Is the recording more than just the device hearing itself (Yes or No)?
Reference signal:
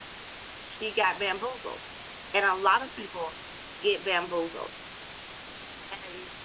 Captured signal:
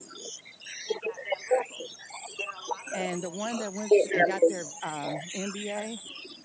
Yes